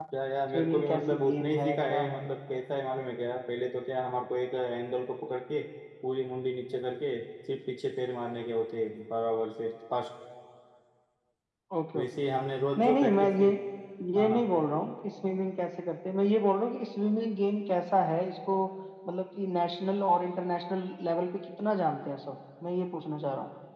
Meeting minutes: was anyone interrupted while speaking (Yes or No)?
Yes